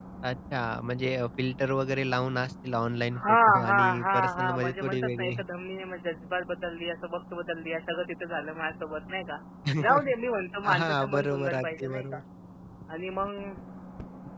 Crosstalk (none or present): present